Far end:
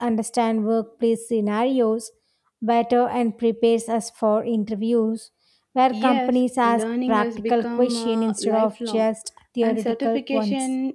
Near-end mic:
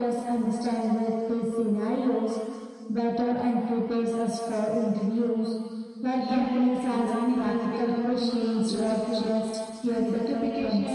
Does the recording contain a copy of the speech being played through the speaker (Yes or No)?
Yes